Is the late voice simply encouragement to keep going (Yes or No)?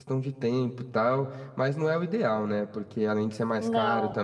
Yes